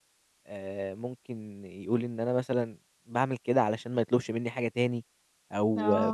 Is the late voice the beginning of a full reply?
No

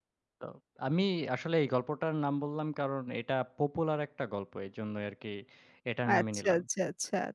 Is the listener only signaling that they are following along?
No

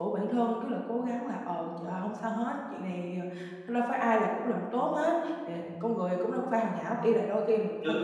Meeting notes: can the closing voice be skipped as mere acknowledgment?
Yes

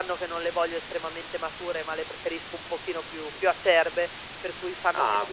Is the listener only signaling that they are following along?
Yes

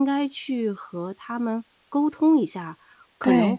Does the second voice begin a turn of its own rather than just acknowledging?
No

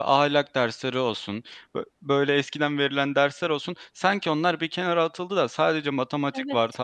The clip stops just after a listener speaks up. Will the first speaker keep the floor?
Yes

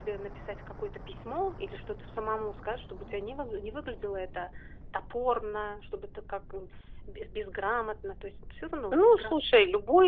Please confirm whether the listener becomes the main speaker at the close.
Yes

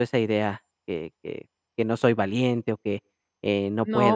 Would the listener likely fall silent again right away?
No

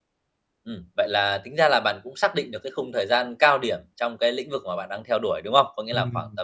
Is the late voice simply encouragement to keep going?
Yes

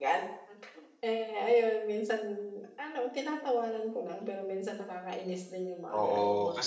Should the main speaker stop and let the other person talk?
Yes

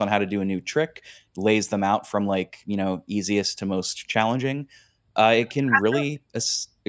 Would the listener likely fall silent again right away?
Yes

